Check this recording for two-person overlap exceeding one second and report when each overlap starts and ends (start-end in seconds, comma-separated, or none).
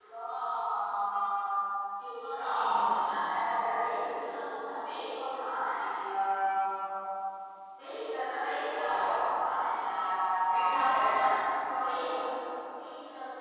10.5-12.3